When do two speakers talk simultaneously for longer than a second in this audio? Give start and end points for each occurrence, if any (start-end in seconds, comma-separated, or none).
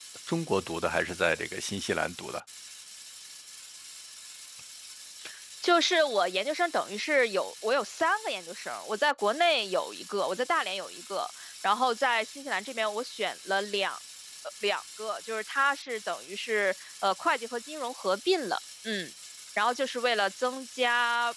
none